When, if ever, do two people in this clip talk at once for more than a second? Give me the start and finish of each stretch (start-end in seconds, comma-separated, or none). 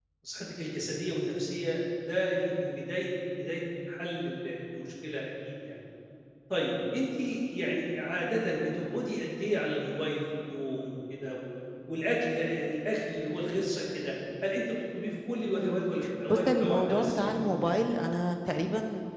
16.3-17.6